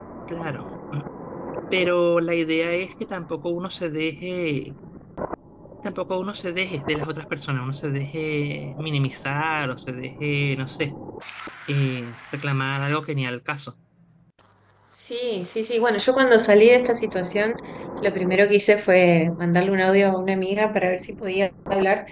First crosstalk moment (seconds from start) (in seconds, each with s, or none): none